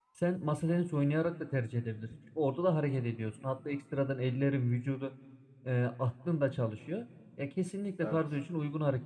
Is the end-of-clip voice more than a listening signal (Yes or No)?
No